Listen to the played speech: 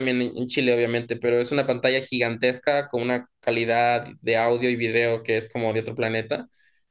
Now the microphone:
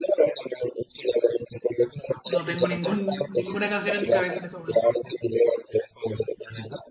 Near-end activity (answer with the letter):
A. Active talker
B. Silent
A